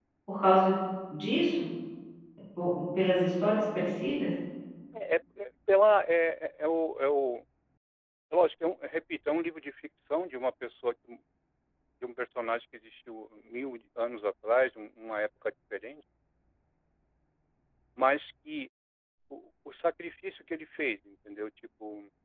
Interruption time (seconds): none

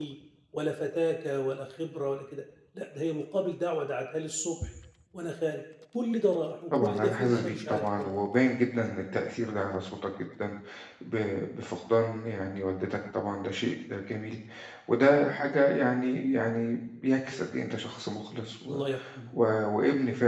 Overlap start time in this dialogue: 7 s

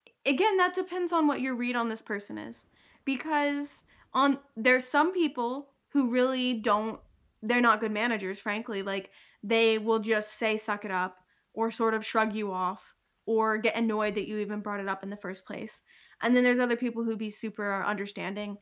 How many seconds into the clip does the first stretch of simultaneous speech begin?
none

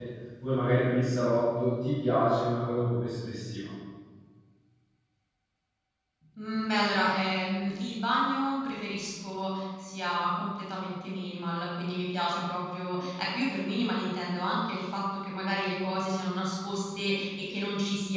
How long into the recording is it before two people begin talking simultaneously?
none

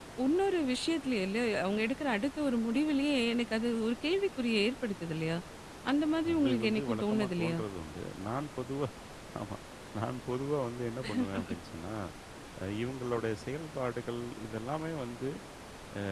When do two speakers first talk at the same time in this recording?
6 s

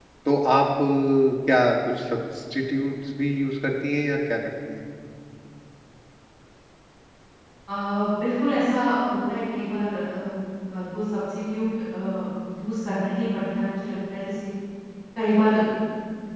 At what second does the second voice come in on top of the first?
none

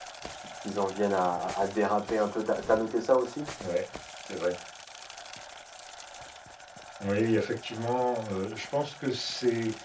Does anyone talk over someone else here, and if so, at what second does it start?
none

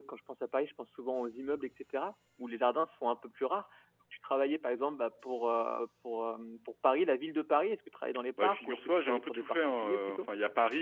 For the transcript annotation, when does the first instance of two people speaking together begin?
8 s

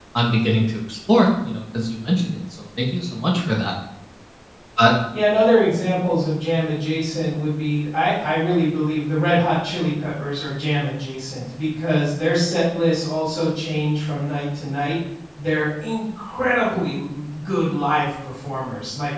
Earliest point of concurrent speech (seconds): none

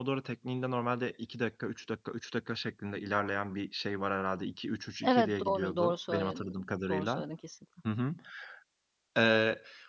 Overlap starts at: 5 s

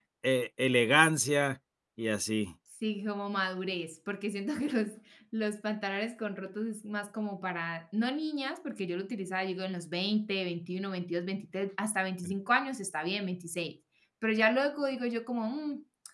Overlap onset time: none

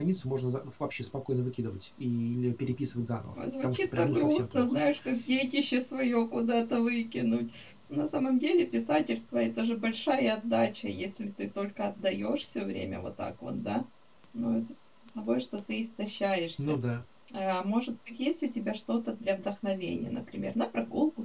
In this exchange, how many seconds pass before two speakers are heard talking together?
3 s

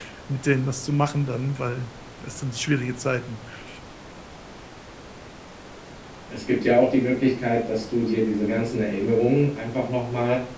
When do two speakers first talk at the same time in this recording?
none

